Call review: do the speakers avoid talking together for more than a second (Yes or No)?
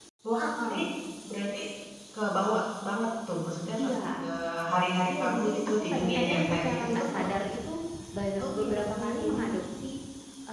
No